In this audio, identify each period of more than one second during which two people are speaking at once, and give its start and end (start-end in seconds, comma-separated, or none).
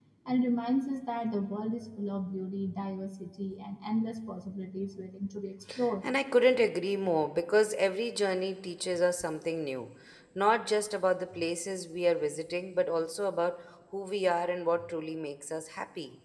none